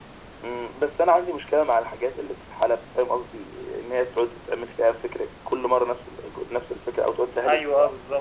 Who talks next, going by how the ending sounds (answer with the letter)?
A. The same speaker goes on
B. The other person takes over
B